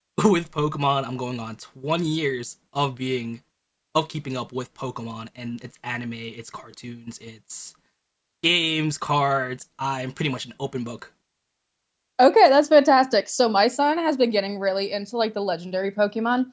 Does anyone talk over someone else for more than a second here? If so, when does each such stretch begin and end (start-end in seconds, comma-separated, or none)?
none